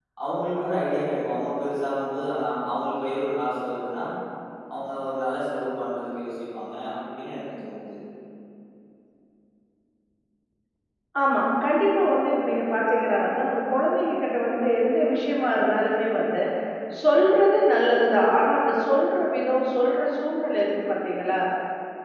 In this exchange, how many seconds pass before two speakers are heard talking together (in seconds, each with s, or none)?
none